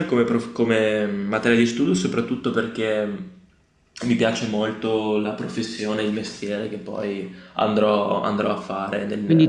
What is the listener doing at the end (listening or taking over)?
taking over